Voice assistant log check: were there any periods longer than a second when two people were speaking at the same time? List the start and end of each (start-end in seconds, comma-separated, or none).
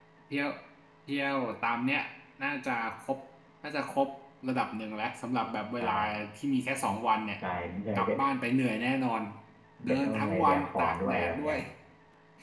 9.8-11.6